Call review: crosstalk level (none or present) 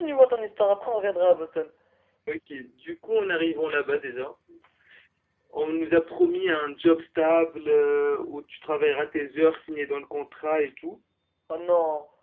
none